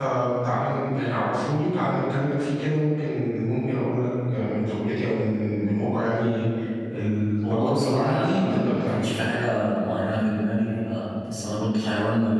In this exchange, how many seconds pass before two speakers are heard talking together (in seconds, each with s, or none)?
7.5 s